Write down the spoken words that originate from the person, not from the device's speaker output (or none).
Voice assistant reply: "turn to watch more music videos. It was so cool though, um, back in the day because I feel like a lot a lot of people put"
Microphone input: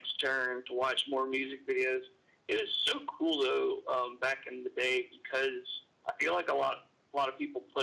none